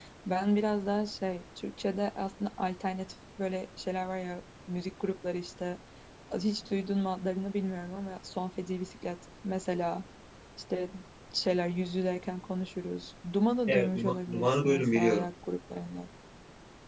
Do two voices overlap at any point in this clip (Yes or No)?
Yes